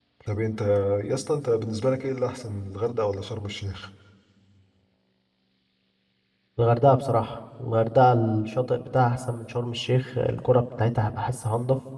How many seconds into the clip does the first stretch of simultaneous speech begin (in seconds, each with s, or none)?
none